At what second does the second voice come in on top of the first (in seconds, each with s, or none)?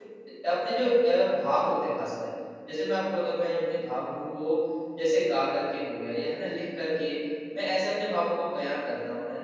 none